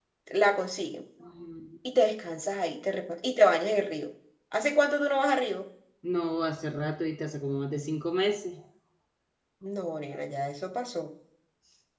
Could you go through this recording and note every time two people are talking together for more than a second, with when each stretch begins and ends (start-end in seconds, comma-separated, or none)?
none